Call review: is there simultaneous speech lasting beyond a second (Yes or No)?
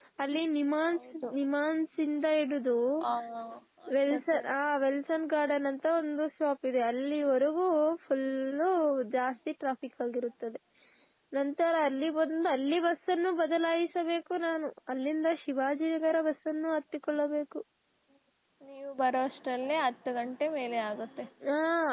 No